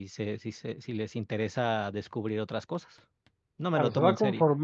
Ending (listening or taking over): taking over